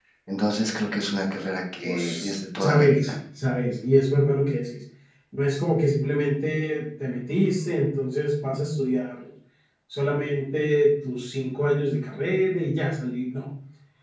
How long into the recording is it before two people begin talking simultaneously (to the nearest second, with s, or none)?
2 s